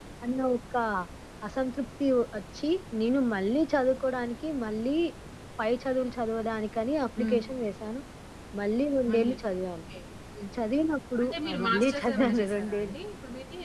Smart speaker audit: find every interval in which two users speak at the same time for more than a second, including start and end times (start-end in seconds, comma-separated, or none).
11.2-13.0